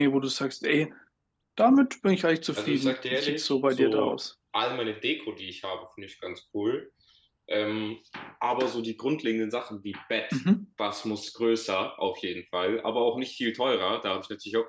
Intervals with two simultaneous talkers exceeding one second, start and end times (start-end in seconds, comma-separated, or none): 2.6-4.2